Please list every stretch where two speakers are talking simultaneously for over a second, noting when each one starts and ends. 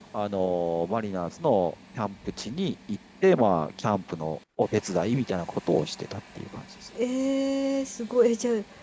none

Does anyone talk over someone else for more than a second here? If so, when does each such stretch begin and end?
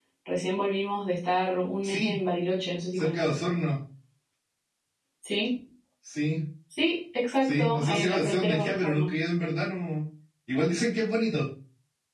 7.4-9.1

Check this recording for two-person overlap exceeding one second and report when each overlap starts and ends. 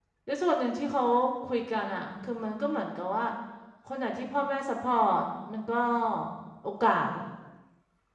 none

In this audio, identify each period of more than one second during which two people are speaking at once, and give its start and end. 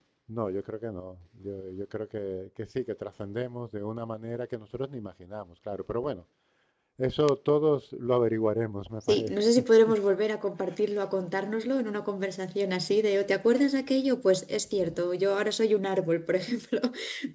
none

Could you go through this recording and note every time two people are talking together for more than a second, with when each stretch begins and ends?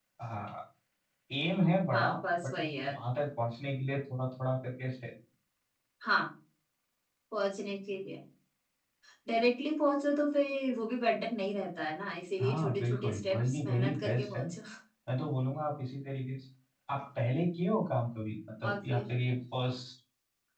12.4-14.4

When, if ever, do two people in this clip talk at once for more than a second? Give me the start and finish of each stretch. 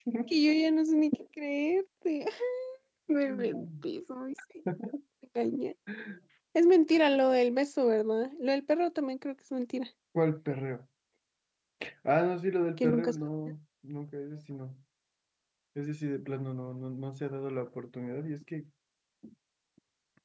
none

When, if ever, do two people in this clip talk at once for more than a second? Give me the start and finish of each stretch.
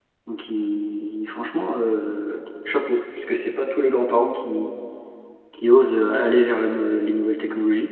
none

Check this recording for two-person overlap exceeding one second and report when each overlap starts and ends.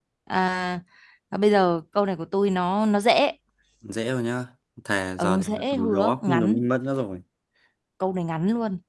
5.2-6.6

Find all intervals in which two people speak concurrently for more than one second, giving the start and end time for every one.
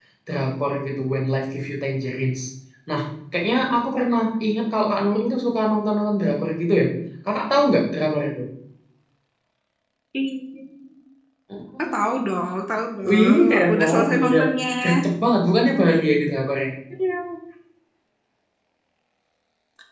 13.1-14.4

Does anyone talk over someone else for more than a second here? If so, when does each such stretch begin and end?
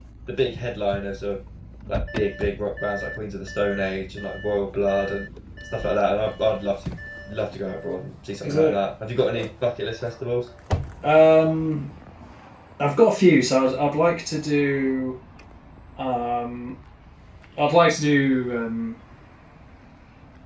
none

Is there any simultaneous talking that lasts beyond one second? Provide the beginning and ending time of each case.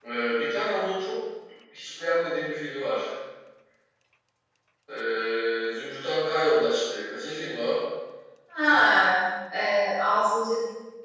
none

